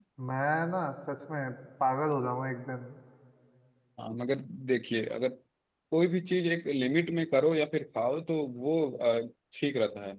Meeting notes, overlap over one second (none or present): none